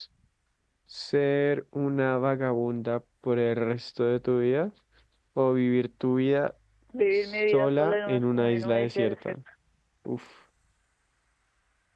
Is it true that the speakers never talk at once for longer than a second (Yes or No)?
No